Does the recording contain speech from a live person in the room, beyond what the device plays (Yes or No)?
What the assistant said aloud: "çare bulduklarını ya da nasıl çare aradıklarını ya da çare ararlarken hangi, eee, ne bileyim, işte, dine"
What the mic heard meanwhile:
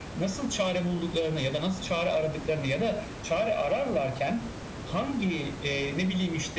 No